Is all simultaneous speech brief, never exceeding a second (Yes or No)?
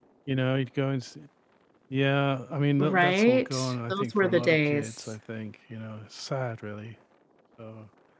No